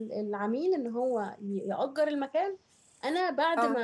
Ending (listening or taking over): listening